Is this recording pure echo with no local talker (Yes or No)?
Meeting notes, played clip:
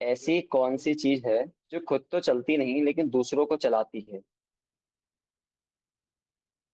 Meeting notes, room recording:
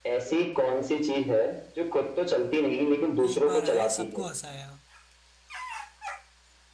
No